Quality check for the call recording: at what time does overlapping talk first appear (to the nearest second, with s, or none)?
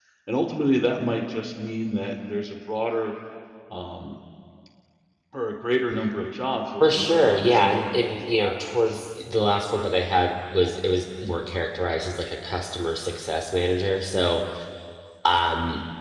7 s